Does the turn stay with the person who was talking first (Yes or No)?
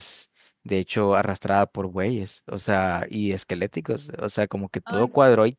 Yes